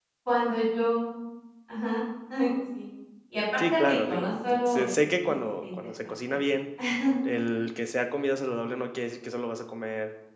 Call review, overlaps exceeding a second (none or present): present